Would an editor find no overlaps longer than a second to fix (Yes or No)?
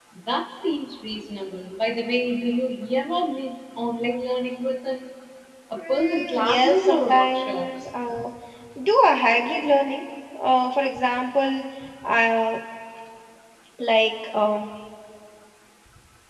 No